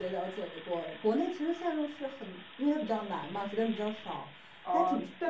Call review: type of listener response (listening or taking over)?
taking over